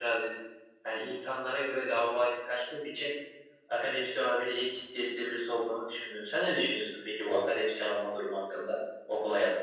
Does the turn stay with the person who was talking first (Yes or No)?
No